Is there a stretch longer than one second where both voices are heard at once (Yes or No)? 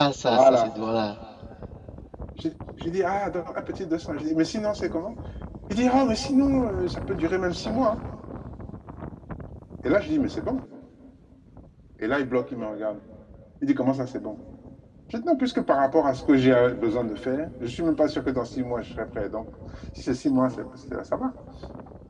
No